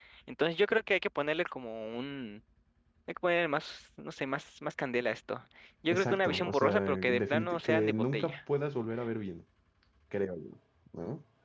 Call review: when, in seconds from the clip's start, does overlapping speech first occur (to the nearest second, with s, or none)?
6 s